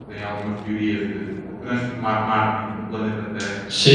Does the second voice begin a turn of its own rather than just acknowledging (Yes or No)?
No